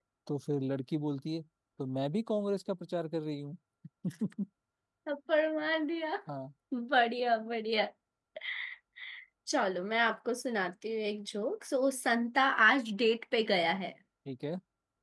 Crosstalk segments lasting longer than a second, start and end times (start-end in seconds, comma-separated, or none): none